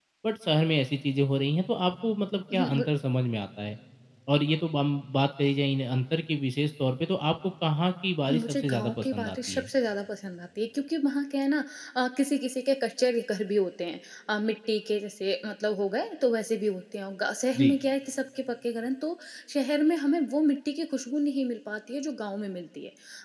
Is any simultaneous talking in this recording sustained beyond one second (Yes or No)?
Yes